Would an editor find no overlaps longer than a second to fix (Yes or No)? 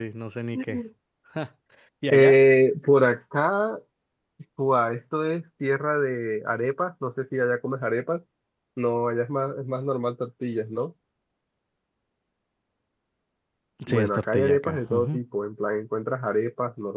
No